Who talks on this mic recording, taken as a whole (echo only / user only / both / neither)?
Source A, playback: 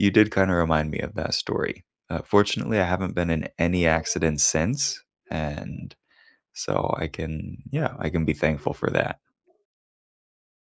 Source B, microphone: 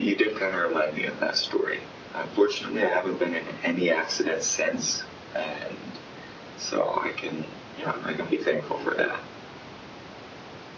echo only